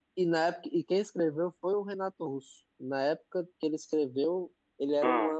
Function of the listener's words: listening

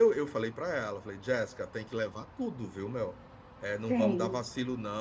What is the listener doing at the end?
listening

